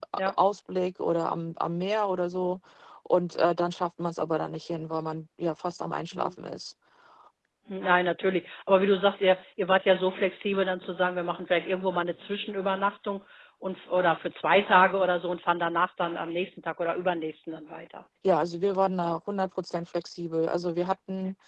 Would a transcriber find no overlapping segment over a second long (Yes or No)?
Yes